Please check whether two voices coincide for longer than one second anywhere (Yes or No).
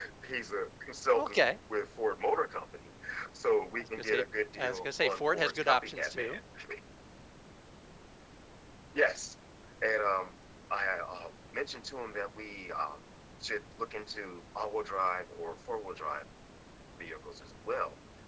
Yes